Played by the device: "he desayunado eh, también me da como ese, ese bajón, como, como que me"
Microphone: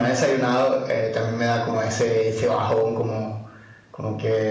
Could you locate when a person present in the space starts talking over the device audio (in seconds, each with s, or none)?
none